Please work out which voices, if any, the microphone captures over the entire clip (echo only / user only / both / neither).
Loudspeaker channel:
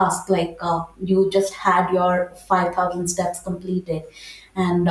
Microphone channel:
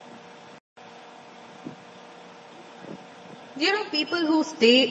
user only